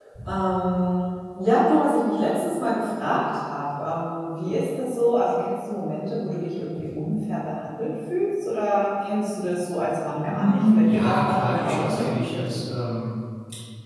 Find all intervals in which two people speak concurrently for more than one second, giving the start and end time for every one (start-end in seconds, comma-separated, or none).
10.3-12.4